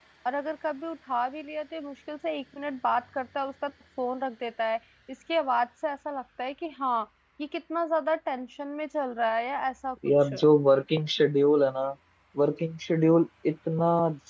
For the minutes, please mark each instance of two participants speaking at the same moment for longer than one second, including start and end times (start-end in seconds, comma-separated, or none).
none